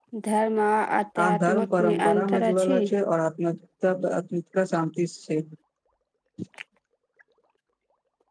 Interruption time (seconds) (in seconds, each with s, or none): 1.4 s